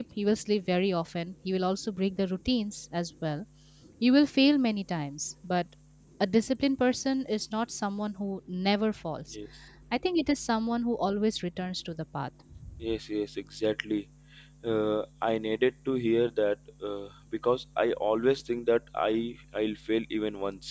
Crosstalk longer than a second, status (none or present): none